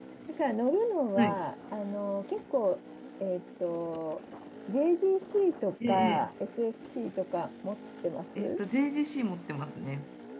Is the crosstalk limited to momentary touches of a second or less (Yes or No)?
Yes